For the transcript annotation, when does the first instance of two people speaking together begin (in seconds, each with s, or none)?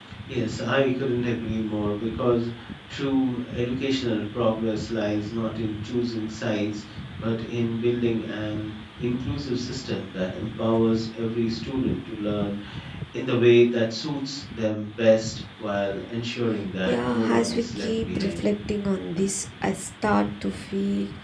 16.9 s